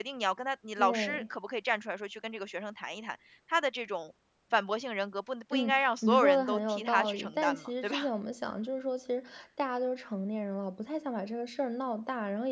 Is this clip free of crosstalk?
No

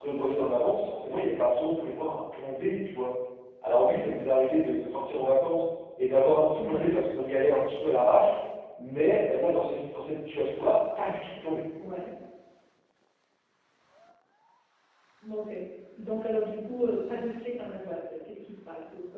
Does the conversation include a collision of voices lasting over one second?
No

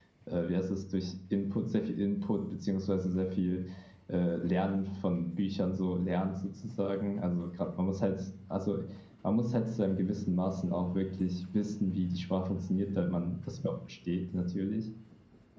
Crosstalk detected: No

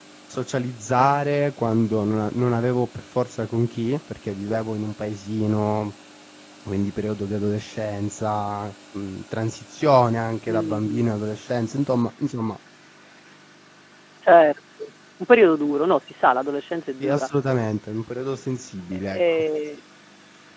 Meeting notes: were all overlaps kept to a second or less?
Yes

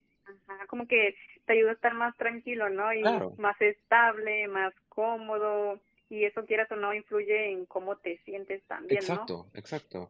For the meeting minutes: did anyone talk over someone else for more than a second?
No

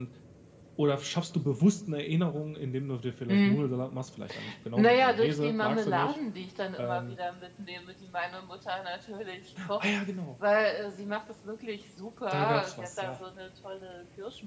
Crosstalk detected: Yes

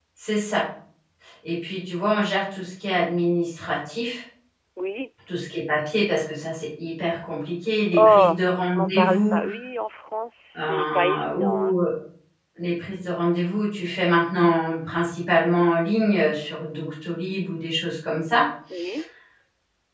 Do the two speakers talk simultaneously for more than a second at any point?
Yes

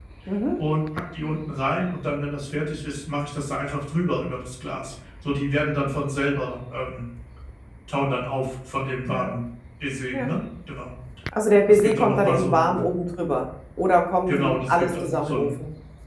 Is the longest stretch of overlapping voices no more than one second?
No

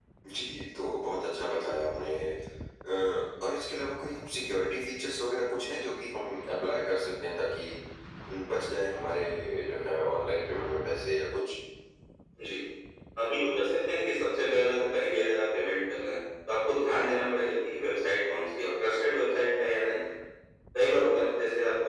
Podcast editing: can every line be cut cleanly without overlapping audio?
Yes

